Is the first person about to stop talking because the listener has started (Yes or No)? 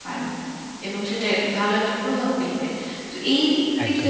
No